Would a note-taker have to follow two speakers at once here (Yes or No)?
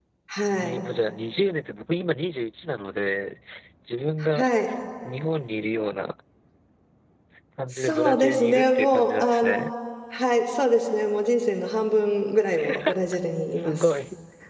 Yes